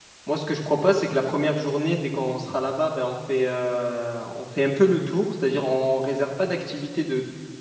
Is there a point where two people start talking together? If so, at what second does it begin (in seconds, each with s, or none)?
none